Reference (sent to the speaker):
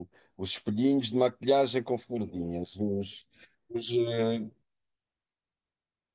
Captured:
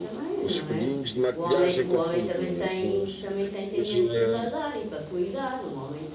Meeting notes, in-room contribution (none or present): present